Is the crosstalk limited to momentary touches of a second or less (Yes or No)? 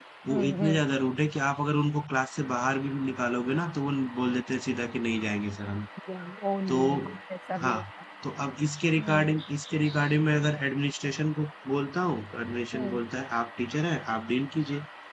Yes